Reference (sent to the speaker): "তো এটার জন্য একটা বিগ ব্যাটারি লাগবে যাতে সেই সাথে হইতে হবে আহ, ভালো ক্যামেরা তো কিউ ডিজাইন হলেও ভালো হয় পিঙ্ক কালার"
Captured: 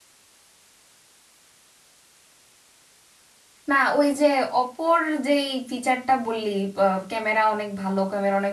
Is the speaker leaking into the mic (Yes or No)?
No